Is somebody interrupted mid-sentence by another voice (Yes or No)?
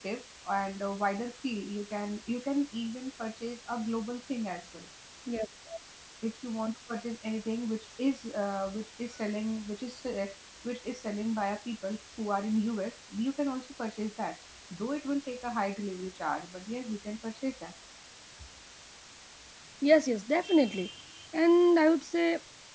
No